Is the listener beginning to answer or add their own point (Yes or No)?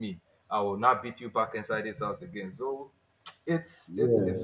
Yes